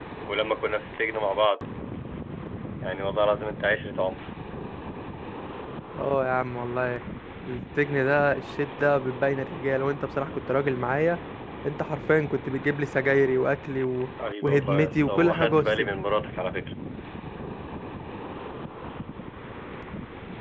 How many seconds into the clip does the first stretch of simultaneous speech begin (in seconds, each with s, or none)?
14.2 s